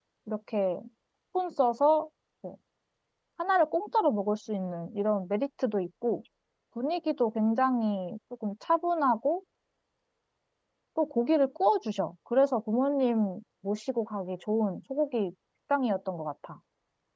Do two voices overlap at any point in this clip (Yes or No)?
No